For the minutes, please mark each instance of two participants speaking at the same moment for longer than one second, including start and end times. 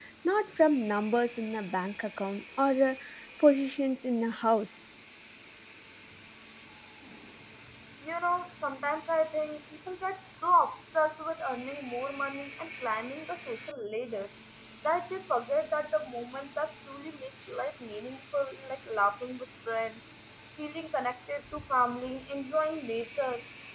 none

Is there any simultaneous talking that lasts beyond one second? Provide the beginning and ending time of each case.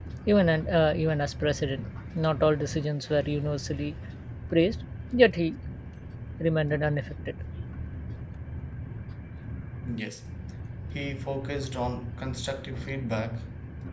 none

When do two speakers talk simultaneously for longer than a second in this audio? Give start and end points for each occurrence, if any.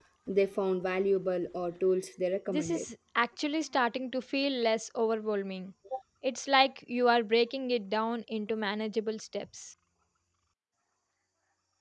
none

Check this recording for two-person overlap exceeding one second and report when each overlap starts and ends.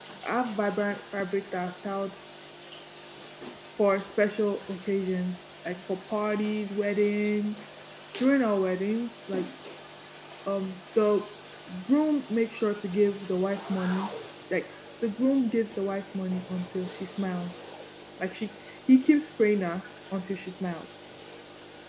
none

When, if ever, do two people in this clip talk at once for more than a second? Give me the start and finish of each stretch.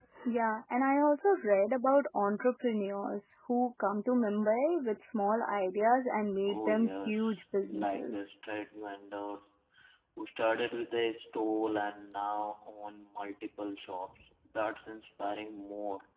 6.5-8.2

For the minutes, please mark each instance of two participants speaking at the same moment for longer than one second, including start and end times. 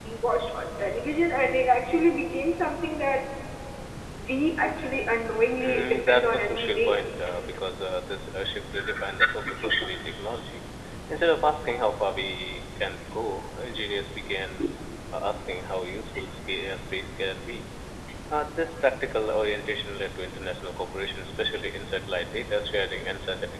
5.5-7.0

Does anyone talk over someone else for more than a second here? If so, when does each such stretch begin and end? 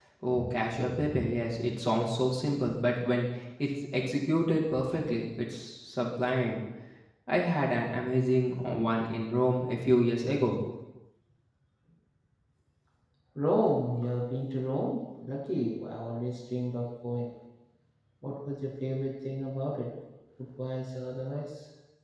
none

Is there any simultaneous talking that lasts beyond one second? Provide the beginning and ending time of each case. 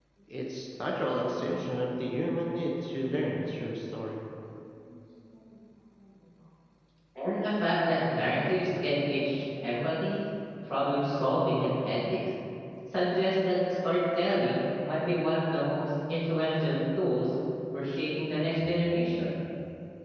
none

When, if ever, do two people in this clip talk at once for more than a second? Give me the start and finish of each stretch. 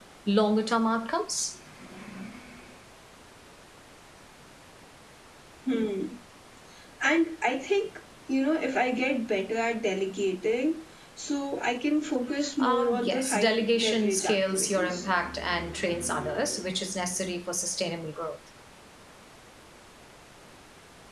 12.6-15.1

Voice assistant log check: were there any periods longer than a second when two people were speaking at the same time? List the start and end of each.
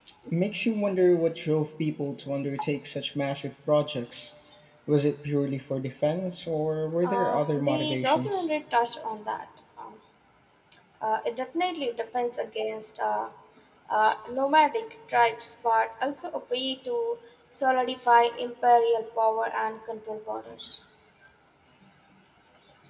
7.0-8.5

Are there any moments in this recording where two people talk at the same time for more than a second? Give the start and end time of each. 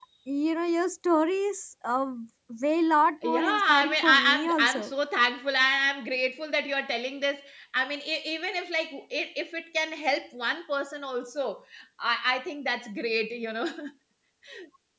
3.2-4.9

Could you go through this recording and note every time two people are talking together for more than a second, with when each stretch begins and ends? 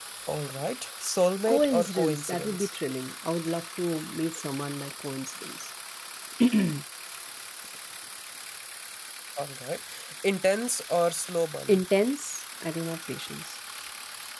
1.5-2.7

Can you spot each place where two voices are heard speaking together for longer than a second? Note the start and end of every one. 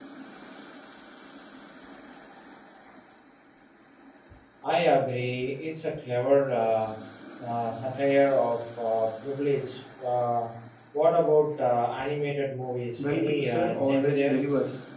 13.0-14.4

